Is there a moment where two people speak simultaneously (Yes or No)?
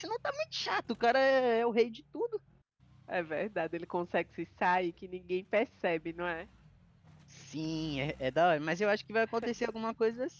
No